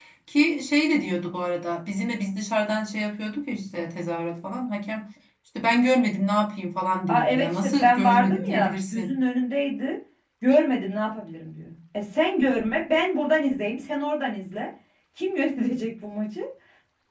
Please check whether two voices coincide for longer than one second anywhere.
Yes, from 7.1 s

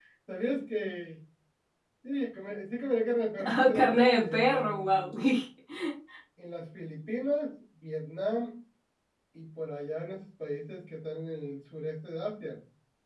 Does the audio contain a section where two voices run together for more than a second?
Yes, from 3.4 s

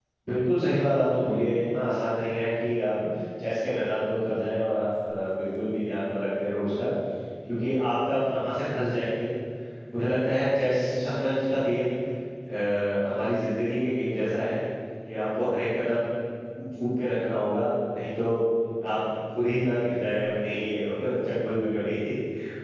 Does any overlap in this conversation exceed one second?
No

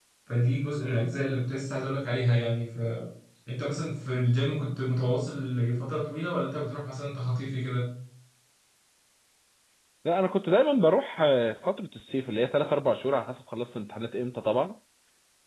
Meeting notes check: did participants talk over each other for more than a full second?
No

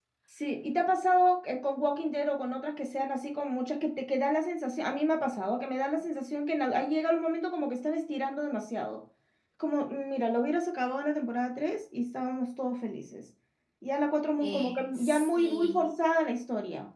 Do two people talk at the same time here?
Yes, from 14.4 s

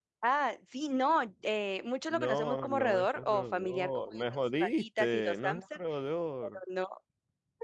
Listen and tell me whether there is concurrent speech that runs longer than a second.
Yes, from 2.1 s

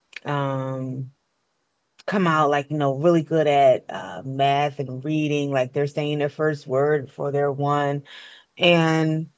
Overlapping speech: No

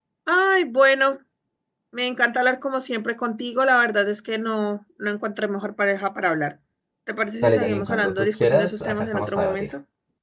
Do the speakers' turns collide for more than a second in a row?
Yes, from 7.4 s

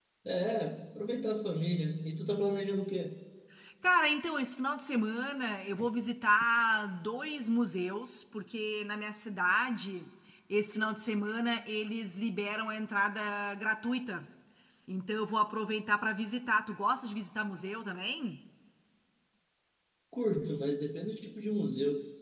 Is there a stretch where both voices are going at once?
No

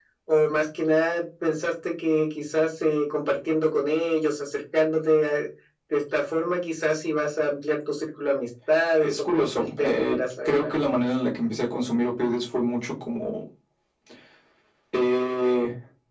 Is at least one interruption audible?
Yes, from 9.0 s

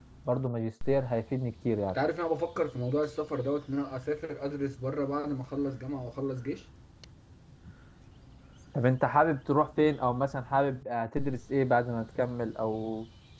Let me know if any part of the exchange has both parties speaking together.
No

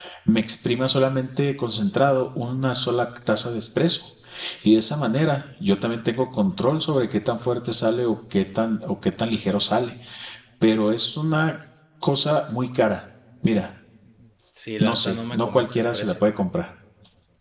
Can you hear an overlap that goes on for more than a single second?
Yes, from 14.8 s

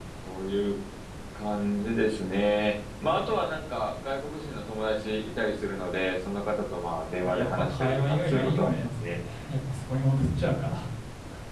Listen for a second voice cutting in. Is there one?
Yes, from 7.2 s

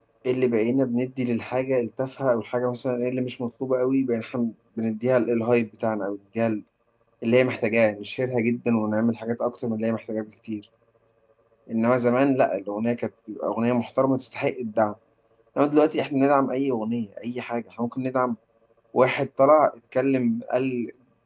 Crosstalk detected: No

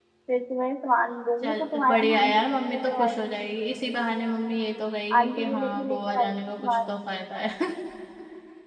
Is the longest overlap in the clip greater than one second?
Yes, from 1.4 s

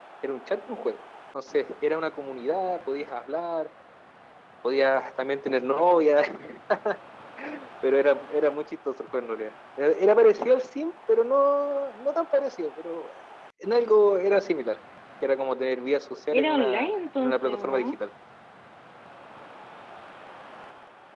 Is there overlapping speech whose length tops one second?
Yes, from 16.3 s

